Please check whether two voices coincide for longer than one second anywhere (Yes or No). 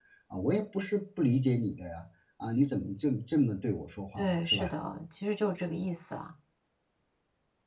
No